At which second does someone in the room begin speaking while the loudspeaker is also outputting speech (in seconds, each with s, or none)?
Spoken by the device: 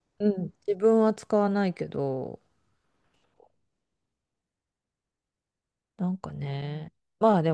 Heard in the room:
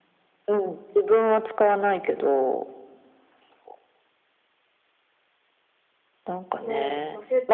6.6 s